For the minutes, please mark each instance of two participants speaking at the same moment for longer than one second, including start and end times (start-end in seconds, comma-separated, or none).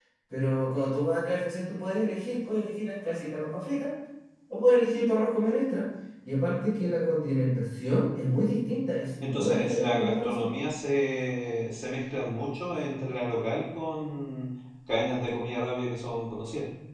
9.2-10.5